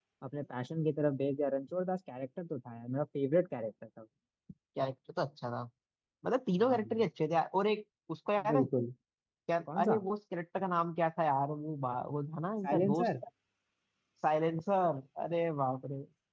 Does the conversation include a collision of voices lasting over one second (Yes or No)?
No